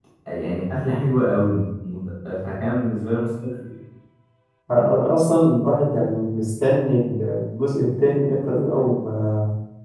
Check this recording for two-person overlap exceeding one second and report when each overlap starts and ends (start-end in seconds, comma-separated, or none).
none